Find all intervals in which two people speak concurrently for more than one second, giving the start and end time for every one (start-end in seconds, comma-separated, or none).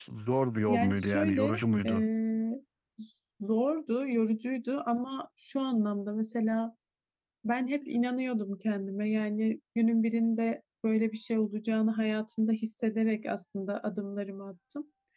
0.7-1.9